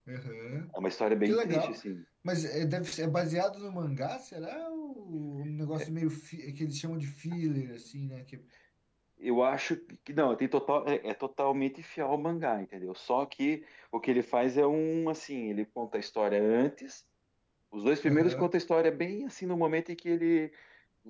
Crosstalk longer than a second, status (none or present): none